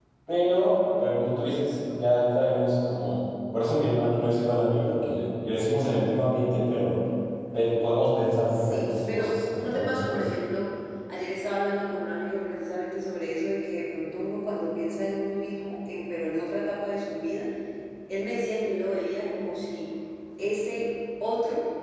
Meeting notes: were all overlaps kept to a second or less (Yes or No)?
No